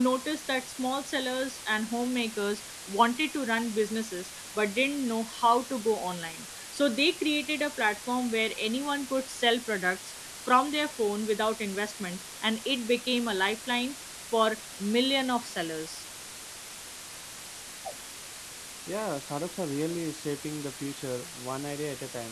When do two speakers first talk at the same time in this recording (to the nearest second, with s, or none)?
none